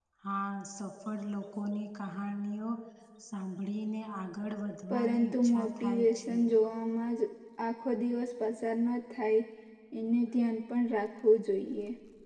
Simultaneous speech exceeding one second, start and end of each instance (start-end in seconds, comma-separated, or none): 4.9-6.4